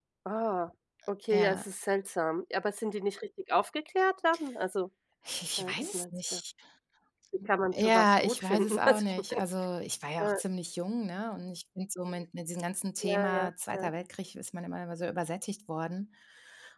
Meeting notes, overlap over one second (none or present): present